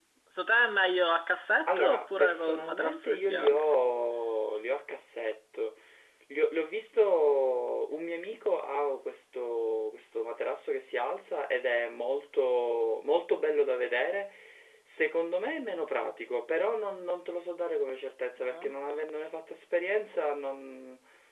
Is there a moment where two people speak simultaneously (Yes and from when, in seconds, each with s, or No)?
Yes, from 1.7 s